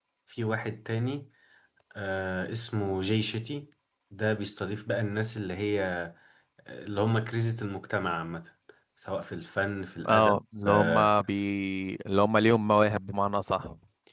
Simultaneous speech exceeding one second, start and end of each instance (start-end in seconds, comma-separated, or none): none